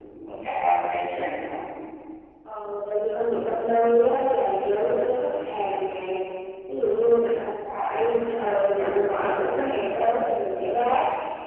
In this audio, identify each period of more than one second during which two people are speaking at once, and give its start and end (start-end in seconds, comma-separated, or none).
none